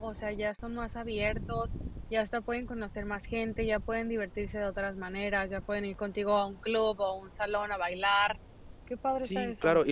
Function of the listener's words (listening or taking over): taking over